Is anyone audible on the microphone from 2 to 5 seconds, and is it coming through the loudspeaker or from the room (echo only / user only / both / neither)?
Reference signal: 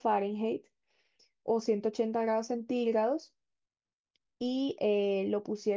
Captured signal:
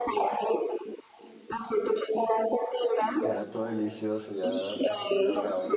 both